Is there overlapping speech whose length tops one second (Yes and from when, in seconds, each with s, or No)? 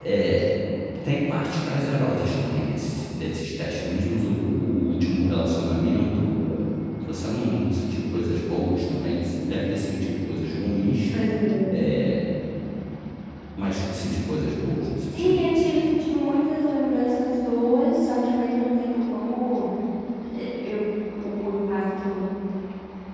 No